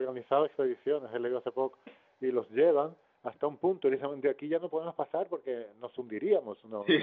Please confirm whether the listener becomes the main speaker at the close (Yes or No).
No